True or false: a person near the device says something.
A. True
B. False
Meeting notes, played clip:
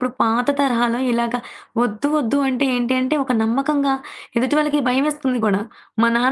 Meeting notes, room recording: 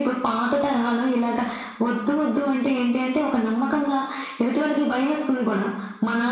B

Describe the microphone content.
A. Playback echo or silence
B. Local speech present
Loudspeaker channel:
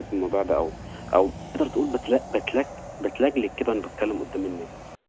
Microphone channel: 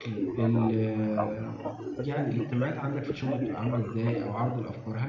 B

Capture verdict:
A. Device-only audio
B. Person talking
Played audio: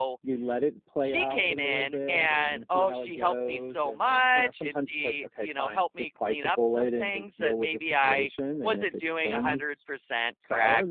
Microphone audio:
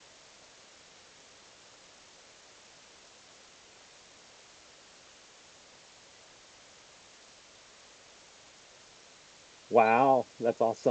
B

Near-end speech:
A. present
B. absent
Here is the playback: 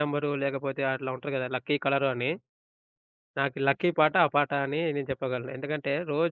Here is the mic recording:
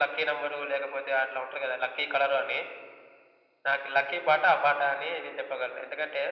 B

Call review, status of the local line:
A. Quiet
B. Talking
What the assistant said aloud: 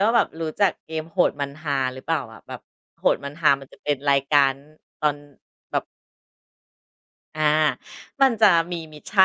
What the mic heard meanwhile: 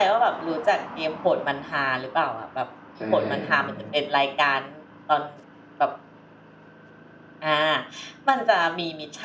B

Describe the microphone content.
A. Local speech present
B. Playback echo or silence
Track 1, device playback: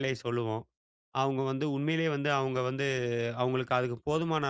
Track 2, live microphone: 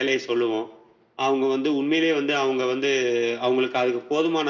B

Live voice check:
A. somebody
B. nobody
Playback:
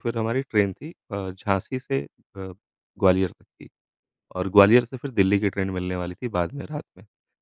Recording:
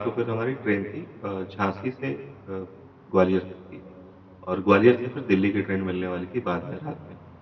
B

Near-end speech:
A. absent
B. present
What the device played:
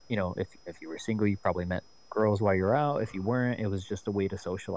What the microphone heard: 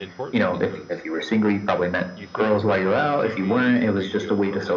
B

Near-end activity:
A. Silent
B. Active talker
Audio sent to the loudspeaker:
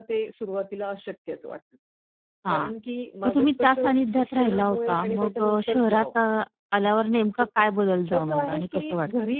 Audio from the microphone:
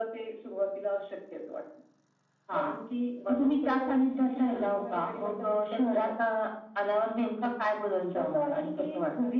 A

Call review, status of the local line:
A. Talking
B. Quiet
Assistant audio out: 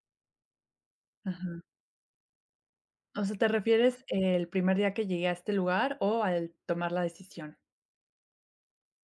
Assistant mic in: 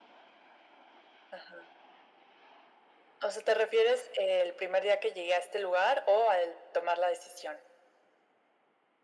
B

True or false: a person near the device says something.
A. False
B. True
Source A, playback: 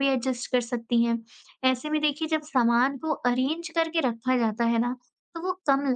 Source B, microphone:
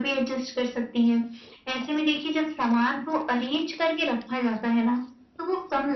A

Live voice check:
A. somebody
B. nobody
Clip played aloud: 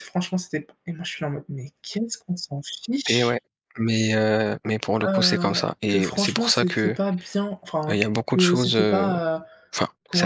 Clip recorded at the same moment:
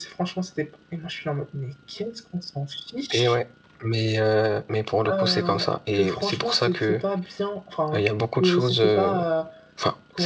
B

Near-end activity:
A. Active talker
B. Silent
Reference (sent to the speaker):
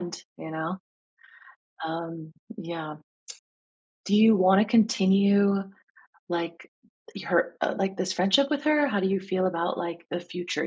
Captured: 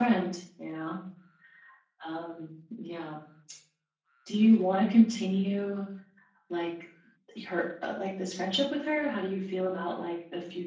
B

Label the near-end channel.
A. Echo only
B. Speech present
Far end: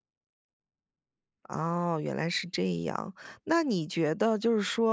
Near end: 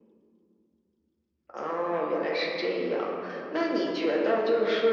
A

